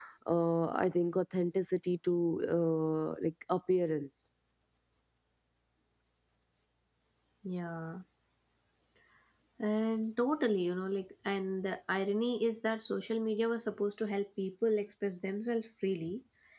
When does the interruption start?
none

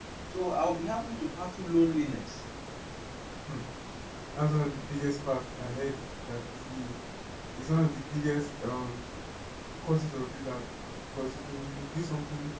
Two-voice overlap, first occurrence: none

